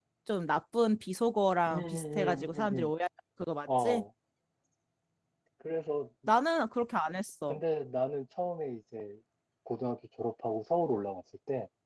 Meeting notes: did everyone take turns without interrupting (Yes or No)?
No